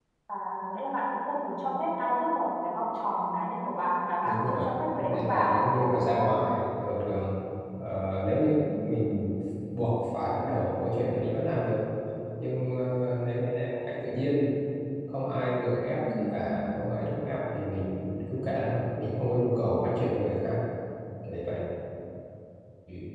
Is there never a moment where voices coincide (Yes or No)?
No